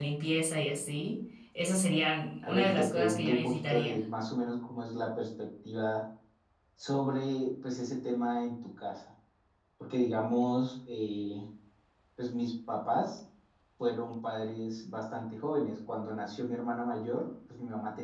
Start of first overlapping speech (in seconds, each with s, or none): 2.4 s